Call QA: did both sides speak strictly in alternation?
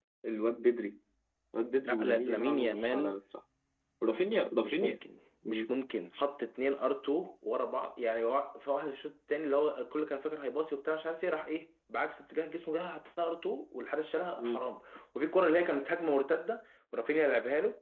No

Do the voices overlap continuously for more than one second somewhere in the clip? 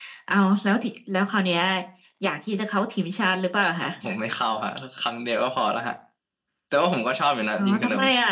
No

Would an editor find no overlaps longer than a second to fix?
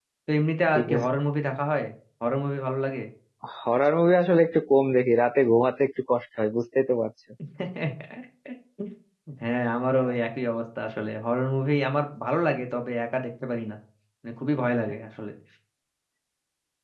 Yes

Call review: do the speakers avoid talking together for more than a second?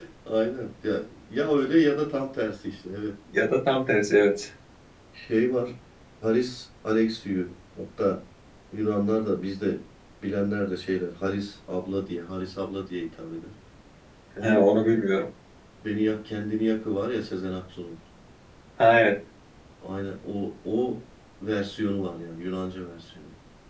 Yes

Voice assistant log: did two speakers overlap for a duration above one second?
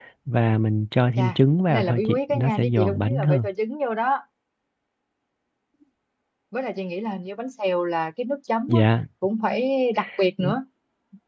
Yes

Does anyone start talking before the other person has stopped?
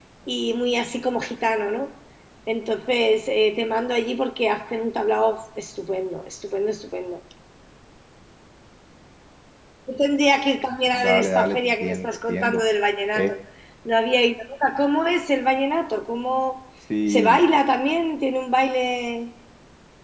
Yes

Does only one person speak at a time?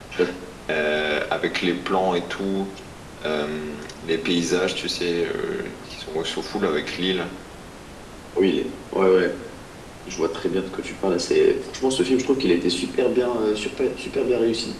Yes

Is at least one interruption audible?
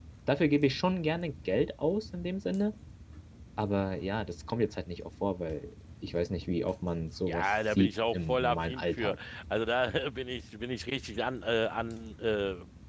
Yes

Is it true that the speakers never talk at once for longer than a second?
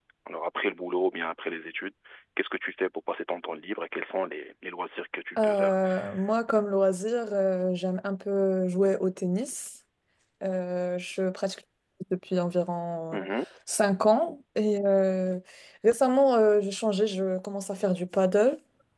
Yes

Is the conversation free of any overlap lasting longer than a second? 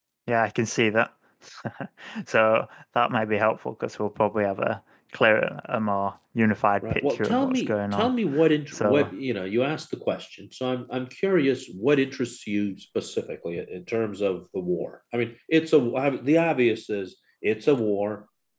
No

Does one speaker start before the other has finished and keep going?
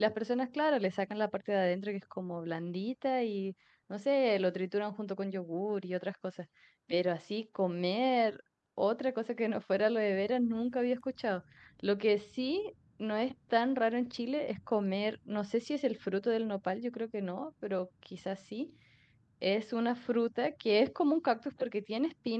No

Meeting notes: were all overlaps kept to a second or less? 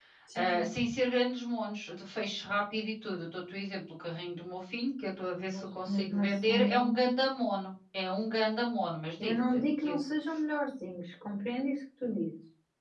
No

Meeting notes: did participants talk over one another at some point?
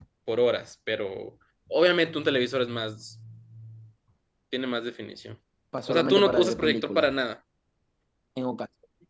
Yes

